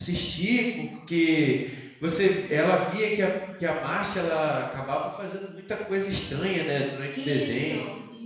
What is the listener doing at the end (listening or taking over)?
taking over